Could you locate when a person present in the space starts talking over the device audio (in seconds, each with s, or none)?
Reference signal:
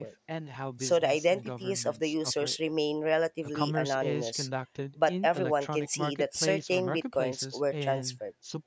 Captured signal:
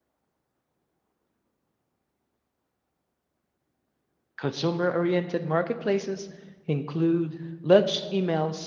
4.4 s